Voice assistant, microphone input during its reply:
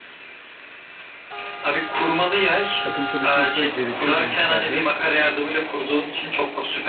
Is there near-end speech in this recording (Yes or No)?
Yes